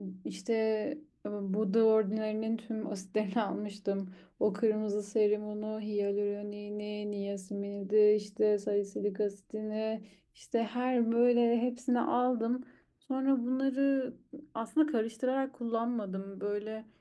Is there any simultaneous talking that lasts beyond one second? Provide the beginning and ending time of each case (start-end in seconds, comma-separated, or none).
none